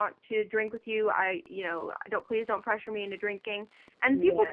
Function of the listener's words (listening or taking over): listening